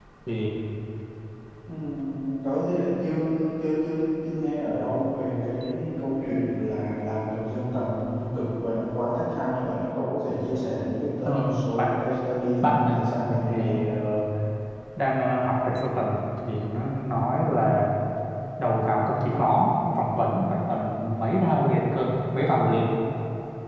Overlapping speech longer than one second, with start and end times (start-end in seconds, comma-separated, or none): 12.6-13.9